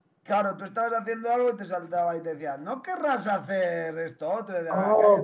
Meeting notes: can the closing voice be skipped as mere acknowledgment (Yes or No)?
No